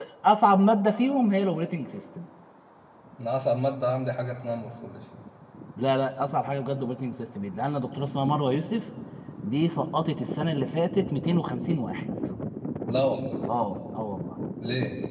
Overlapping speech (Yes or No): No